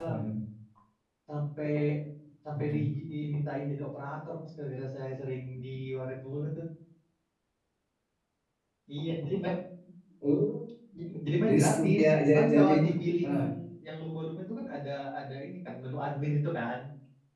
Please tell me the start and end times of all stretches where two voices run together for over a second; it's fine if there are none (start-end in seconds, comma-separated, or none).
11.5-12.7